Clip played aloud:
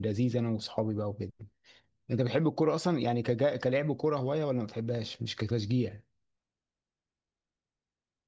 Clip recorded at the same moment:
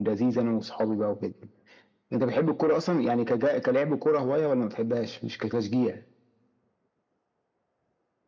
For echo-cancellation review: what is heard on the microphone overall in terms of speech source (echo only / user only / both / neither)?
echo only